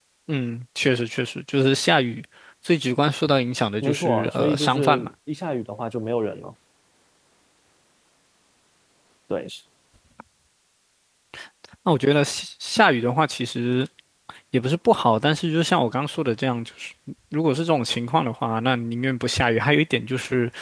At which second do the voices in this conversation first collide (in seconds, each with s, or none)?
3.8 s